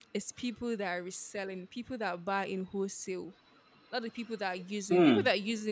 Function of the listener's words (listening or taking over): listening